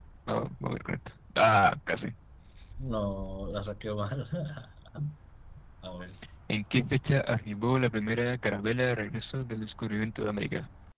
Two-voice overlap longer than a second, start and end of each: none

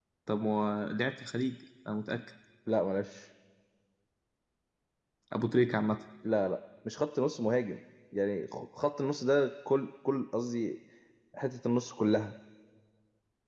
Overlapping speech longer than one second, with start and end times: none

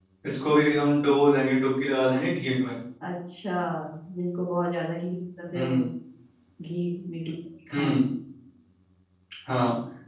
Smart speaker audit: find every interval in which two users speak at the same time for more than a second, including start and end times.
none

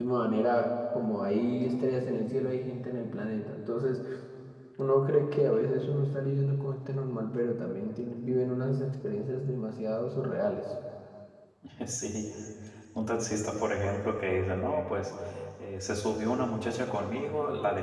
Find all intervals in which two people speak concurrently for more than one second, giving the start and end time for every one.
none

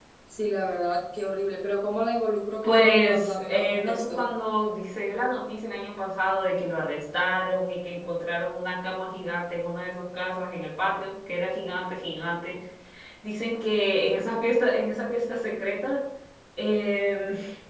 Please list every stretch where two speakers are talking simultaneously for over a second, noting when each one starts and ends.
2.6-4.2

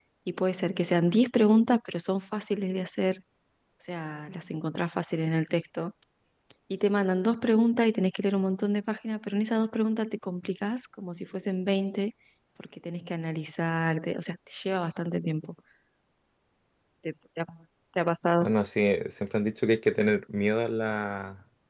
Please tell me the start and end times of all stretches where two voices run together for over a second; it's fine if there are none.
none

